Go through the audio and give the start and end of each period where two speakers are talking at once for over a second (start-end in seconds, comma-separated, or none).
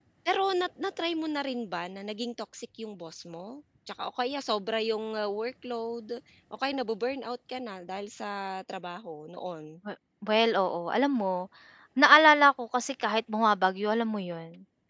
none